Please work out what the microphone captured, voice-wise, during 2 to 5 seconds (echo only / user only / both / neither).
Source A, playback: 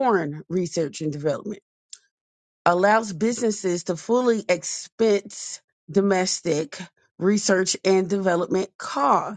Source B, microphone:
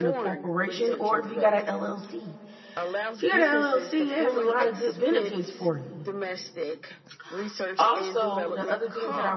both